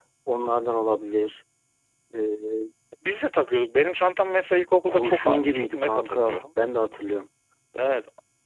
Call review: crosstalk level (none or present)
present